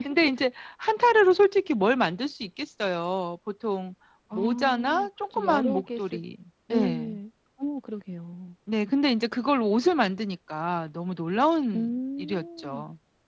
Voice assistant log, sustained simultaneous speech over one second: present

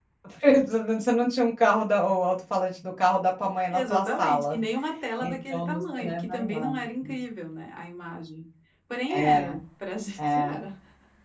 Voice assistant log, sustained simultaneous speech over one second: present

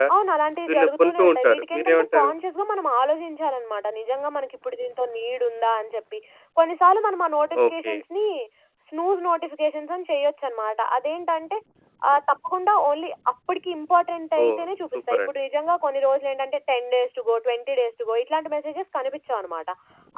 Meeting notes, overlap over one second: present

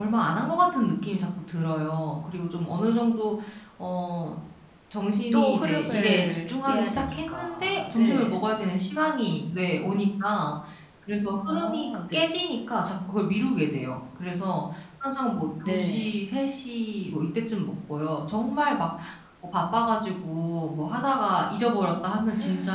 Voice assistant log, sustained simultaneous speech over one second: present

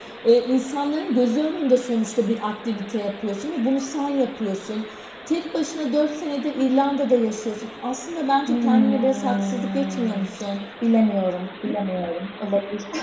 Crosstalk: present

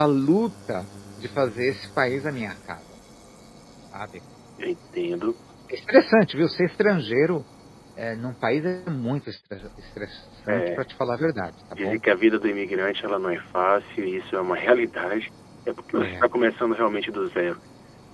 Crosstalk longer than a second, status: none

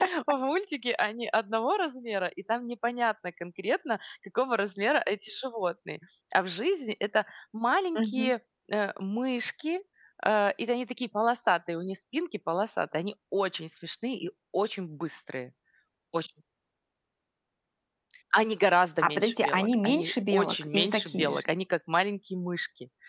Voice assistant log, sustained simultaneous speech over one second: present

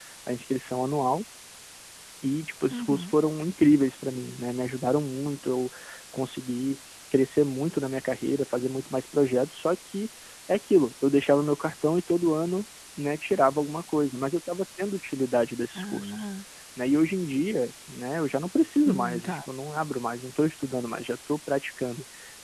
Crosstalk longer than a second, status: none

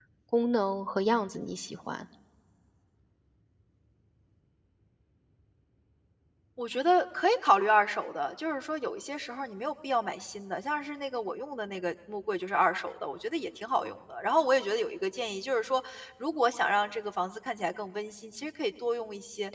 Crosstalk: none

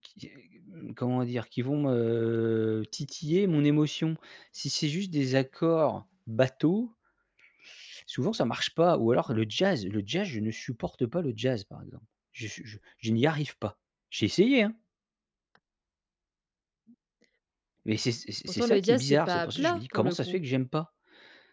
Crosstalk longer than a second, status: present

